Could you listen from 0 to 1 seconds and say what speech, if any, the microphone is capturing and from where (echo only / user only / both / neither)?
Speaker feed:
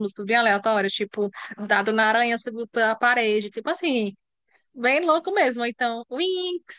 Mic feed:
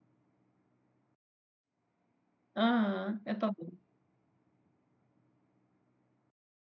neither